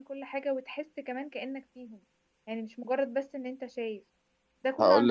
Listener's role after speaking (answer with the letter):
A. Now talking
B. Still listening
B